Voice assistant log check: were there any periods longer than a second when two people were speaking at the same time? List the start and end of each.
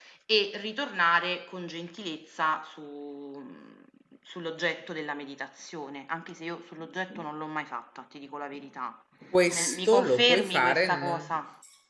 9.5-11.3

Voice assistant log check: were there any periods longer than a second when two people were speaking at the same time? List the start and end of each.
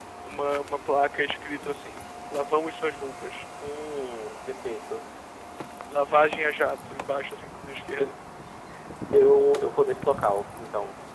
none

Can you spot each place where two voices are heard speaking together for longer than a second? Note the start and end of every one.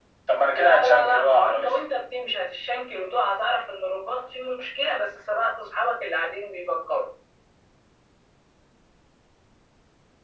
0.5-1.7

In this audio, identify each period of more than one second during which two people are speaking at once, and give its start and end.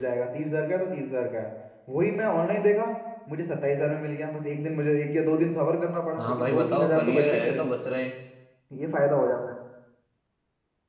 6.2-7.6

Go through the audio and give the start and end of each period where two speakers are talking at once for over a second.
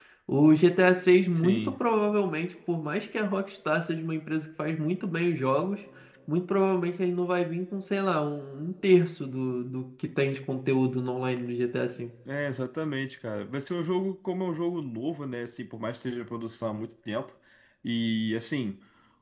none

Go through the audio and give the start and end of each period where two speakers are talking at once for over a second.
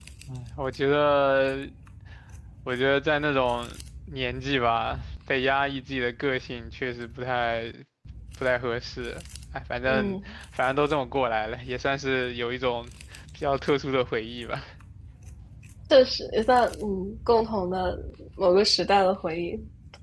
none

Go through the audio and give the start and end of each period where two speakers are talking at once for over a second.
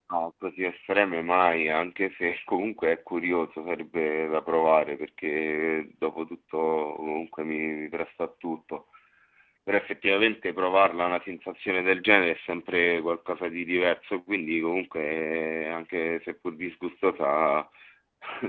none

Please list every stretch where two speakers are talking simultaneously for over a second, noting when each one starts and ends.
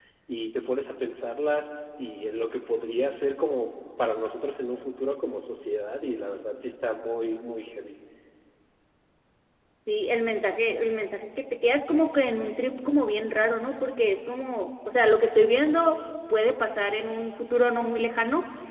none

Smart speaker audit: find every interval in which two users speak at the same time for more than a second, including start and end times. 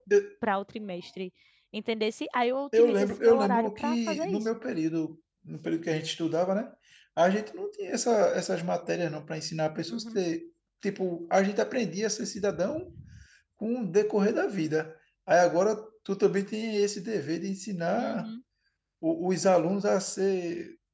2.8-4.6

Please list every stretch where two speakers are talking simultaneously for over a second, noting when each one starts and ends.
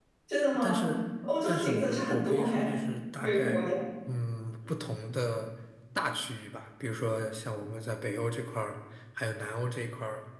1.5-2.7

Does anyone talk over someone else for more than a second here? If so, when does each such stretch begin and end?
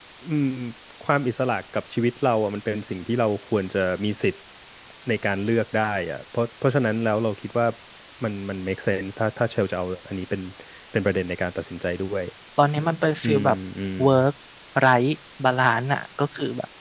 none

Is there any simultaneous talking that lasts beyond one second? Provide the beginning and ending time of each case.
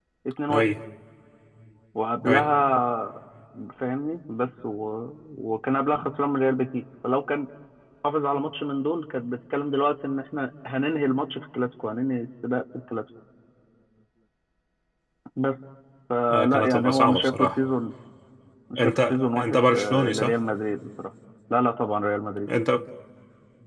16.3-17.6, 18.8-20.4

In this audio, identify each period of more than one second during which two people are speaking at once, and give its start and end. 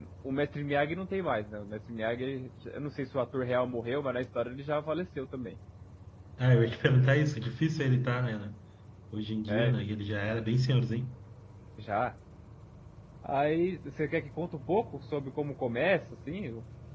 none

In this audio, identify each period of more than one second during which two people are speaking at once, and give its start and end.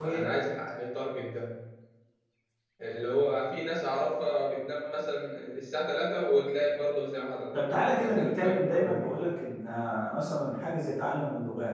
7.5-9.2

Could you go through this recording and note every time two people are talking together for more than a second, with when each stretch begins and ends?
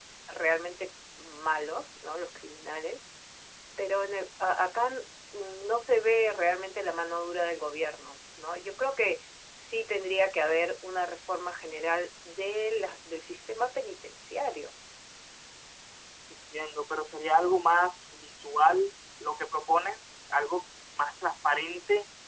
none

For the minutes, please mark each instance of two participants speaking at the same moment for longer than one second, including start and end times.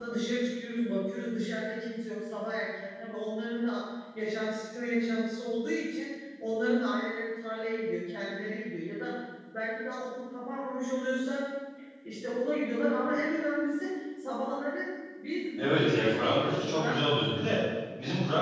15.6-17.5

